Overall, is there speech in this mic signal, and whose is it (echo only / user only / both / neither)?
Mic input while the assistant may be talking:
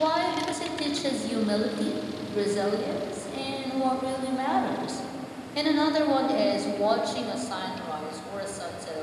echo only